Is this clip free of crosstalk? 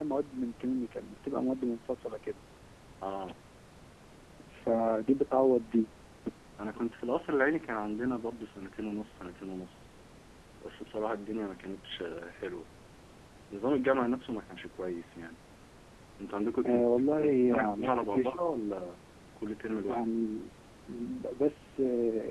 No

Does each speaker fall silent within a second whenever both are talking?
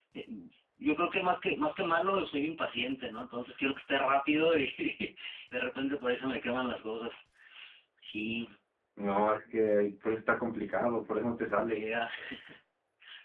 Yes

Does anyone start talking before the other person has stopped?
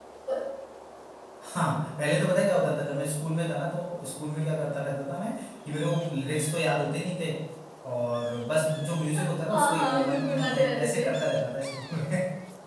Yes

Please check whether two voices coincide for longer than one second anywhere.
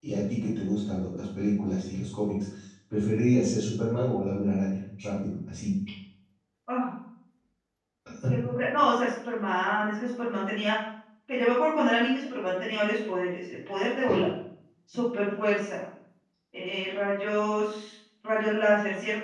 No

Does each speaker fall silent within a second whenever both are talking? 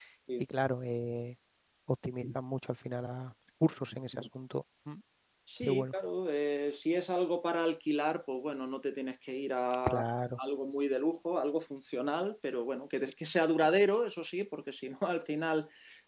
Yes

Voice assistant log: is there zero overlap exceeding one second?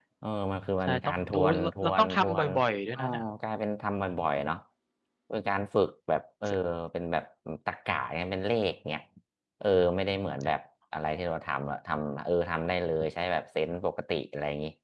No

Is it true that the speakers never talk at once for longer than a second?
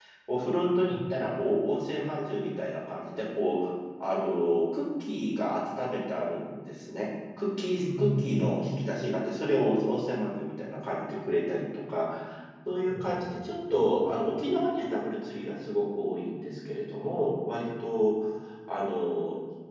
No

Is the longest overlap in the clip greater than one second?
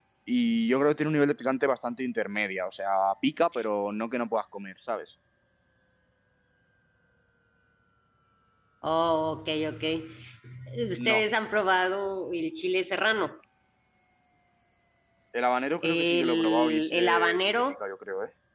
Yes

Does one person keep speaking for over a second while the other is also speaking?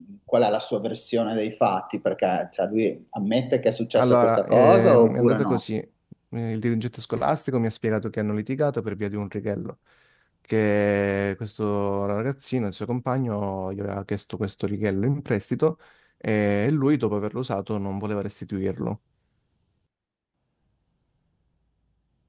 Yes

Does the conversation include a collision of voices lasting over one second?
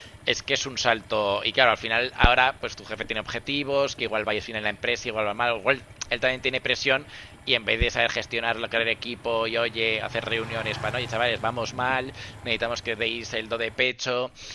No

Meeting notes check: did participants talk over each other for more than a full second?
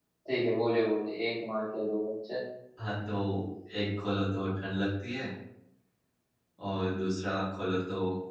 No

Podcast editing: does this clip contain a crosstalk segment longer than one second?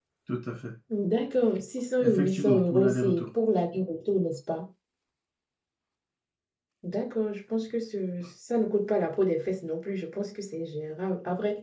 Yes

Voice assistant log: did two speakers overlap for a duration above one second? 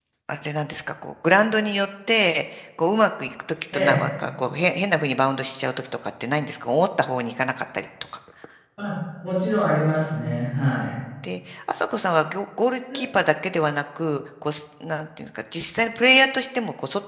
No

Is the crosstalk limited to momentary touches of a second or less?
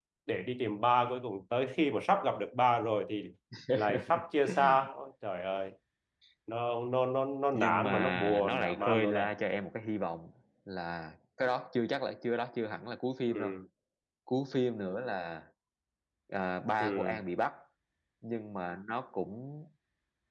No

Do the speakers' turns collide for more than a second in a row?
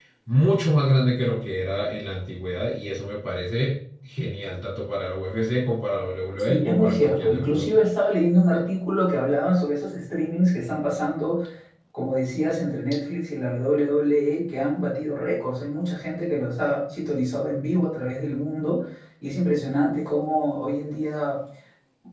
Yes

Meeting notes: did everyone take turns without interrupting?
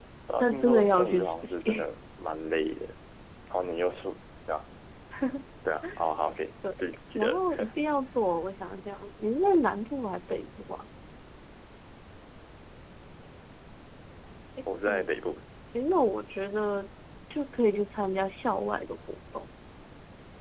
No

